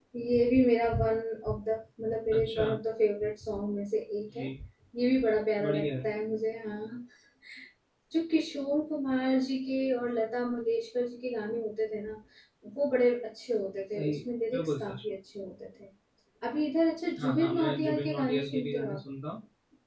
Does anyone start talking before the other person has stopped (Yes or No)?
Yes